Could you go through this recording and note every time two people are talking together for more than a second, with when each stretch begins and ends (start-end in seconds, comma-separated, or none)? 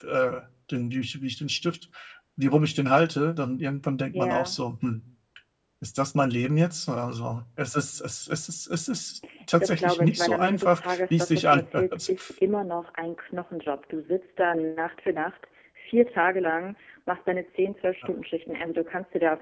9.6-12.3